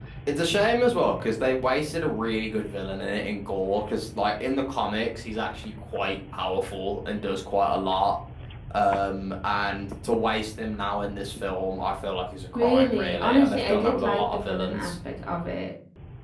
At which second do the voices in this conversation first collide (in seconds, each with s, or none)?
12.6 s